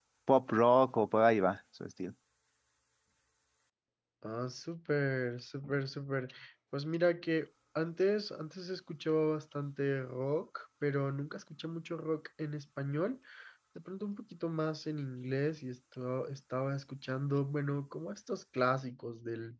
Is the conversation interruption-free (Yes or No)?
Yes